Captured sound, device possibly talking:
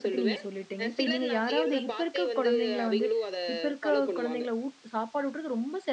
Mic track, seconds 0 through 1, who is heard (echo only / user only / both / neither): both